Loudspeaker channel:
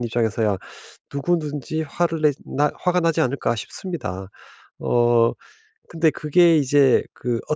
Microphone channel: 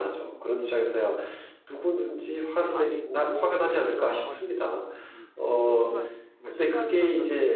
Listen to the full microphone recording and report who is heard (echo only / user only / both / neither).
both